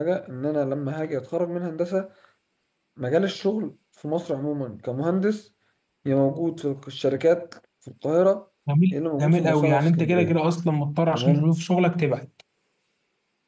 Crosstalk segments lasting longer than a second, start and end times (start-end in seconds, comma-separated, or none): 8.9-10.4